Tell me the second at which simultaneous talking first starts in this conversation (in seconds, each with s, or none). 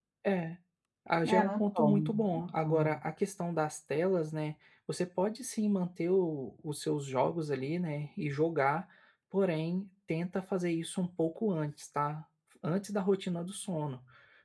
1.3 s